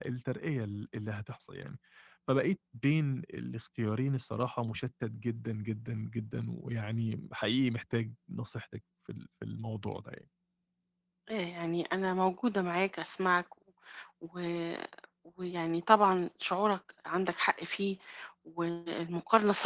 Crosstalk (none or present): none